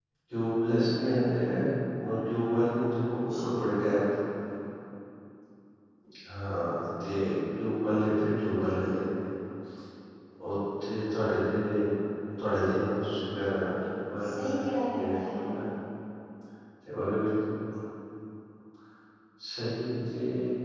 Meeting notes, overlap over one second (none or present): present